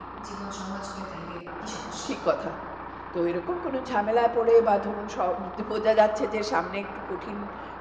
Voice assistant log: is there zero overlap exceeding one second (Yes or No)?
Yes